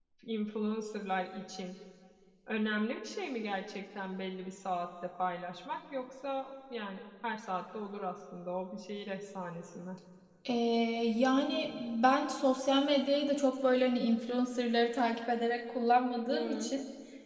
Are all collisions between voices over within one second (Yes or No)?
Yes